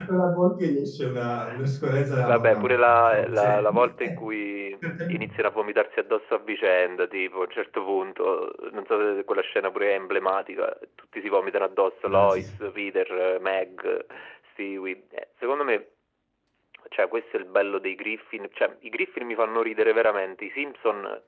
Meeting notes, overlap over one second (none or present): present